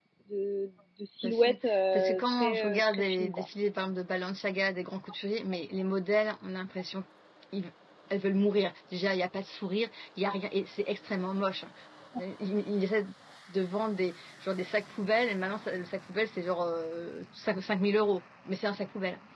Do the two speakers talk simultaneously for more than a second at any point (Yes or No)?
Yes